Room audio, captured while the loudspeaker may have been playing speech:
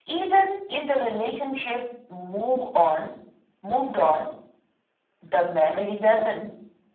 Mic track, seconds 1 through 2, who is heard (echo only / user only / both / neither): echo only